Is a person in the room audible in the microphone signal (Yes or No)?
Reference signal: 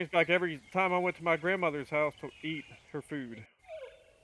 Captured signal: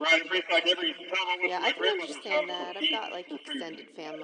Yes